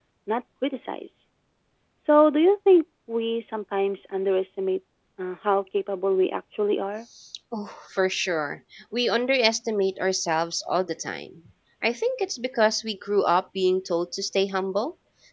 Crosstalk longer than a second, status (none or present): none